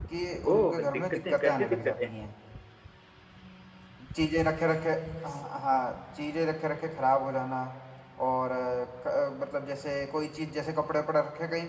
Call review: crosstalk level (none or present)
present